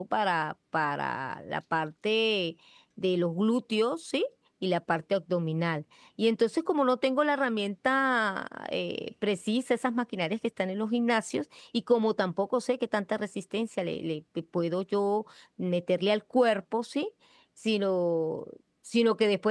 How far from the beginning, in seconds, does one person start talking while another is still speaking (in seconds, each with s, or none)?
none